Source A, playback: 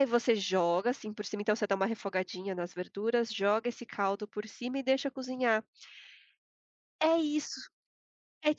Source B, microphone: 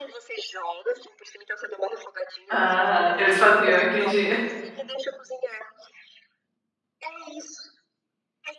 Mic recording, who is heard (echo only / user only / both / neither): both